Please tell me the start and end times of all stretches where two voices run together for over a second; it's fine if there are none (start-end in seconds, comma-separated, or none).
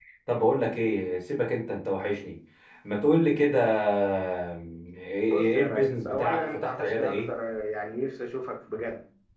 5.3-7.3